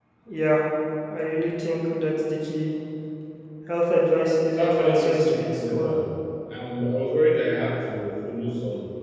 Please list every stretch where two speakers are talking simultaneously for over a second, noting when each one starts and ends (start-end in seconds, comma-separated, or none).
4.5-5.9